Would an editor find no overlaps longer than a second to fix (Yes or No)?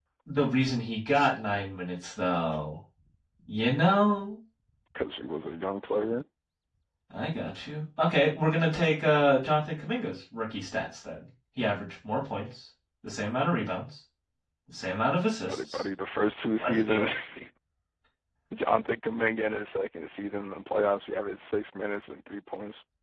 Yes